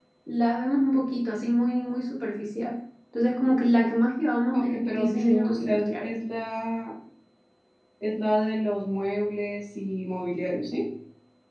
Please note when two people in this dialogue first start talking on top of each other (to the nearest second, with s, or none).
5 s